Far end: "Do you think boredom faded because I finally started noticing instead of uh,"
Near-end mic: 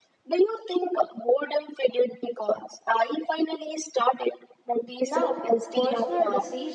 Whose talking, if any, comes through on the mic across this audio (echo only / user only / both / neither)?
both